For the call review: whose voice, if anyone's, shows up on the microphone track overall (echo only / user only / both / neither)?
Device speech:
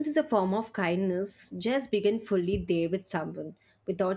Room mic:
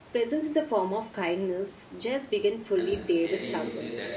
both